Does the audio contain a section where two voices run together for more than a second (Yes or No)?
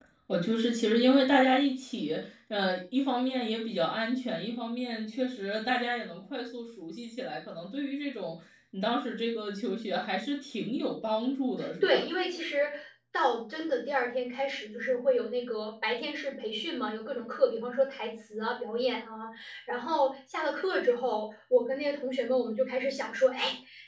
No